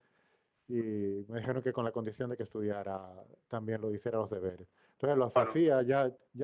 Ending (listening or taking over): listening